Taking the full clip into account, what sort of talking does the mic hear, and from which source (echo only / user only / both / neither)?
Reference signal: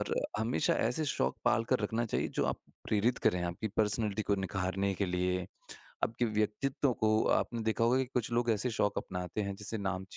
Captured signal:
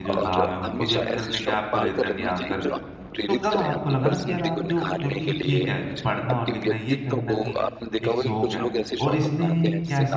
both